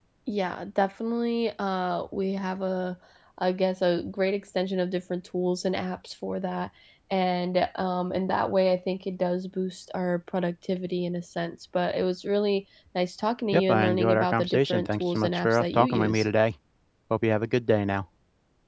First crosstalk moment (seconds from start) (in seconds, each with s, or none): 13.5 s